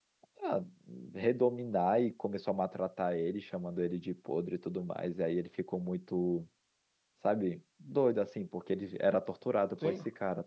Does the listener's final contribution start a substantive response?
No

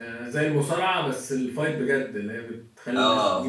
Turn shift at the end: Yes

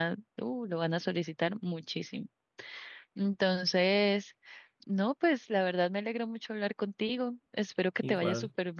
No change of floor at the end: Yes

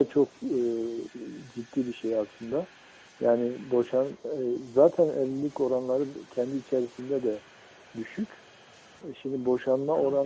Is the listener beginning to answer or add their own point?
No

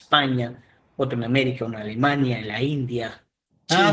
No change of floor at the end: No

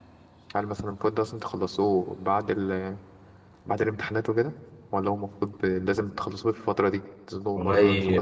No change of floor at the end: No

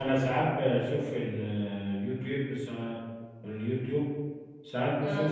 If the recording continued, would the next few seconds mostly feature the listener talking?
No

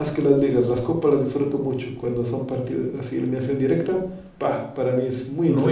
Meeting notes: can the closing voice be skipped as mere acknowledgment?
No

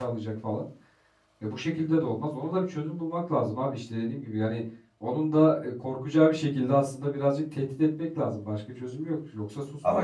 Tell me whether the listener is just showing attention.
No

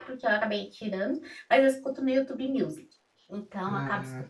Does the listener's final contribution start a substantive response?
No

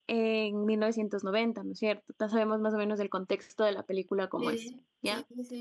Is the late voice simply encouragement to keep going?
No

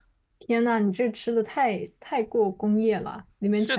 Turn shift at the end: Yes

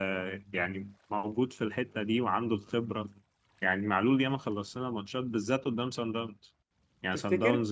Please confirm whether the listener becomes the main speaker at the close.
No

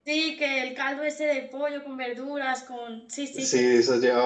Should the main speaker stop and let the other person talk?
Yes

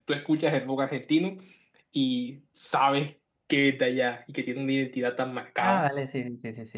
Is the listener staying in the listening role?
No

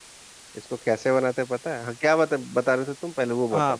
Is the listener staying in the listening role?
No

